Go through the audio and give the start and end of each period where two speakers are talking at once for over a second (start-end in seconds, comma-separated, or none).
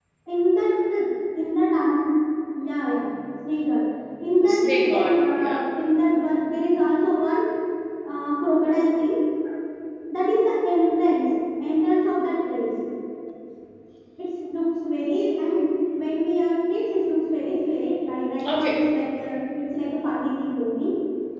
4.4-5.6